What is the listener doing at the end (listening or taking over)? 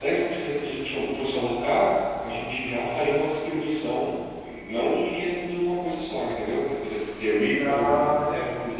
listening